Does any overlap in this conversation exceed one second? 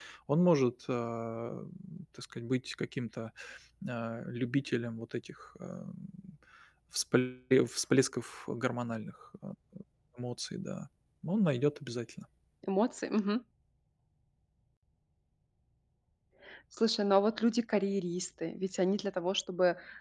No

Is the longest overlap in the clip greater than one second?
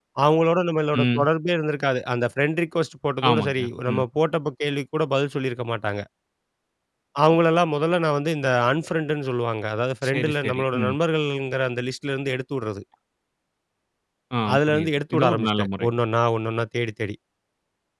Yes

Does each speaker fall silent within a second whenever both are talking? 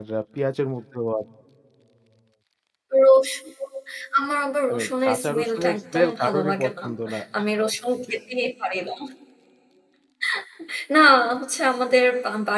No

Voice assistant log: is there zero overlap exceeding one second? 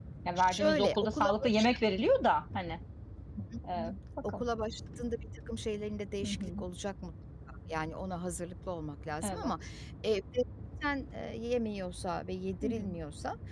No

